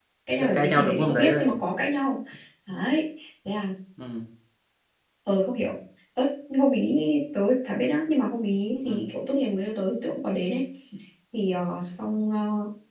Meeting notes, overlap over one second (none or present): present